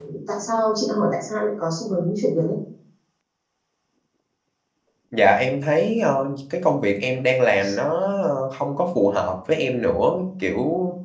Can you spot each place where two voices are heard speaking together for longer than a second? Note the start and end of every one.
none

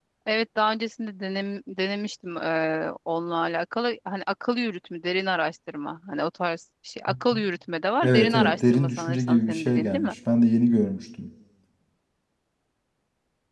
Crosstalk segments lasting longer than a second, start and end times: 8.0-10.2

